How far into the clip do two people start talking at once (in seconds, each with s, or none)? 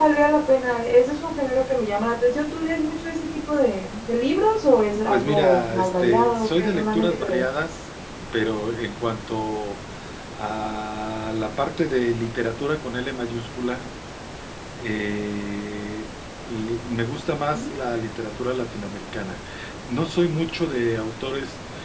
5.1 s